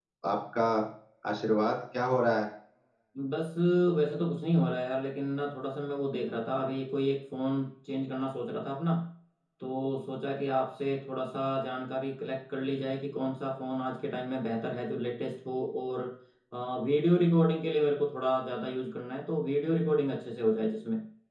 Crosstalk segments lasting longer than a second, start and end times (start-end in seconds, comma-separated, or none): none